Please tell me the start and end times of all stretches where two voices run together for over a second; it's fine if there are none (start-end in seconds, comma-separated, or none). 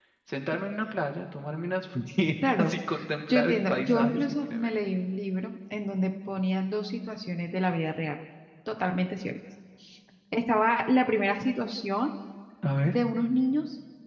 3.3-4.7